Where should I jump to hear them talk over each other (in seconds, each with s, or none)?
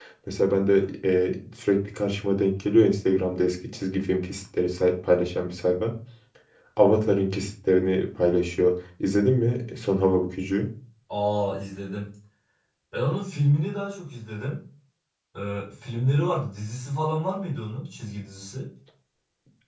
none